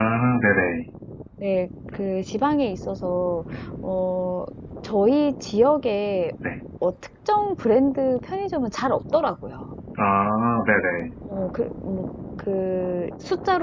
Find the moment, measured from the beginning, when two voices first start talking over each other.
none

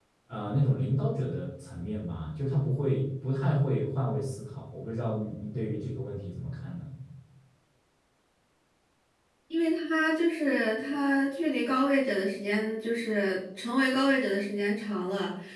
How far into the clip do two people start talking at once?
none

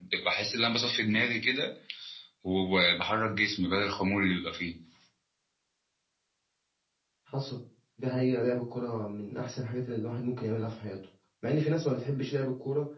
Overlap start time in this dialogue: none

